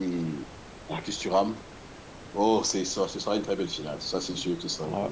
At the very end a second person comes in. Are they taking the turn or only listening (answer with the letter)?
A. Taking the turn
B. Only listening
A